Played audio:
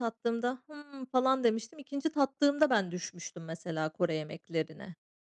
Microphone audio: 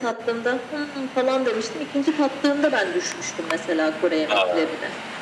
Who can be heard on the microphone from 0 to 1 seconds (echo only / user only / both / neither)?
echo only